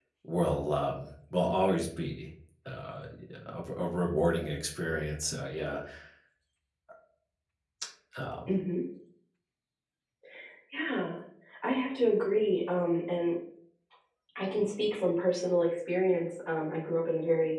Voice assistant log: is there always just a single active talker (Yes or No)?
Yes